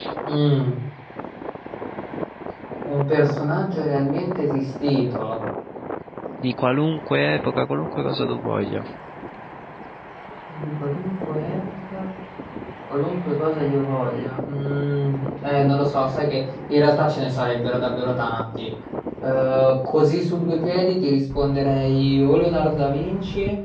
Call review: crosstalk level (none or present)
none